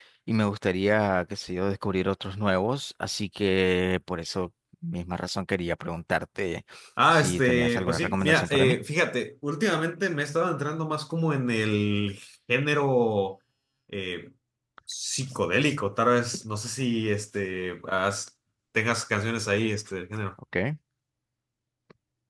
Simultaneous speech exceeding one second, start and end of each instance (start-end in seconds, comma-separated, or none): 7.1-8.8